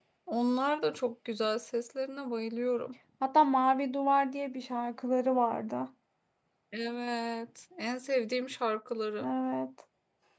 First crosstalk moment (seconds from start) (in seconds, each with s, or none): none